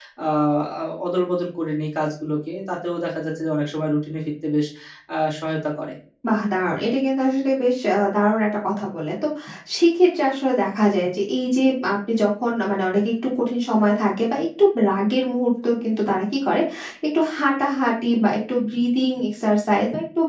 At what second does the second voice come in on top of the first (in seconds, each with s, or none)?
none